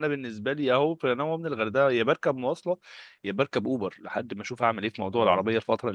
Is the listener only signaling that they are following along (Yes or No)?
Yes